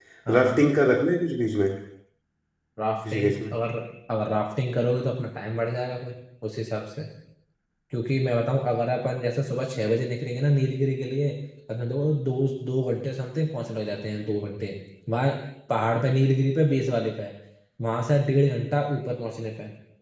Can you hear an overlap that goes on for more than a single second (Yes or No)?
No